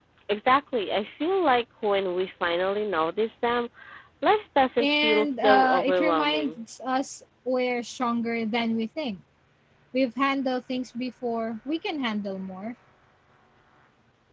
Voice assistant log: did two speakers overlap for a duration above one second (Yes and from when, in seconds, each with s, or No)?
Yes, from 4.8 s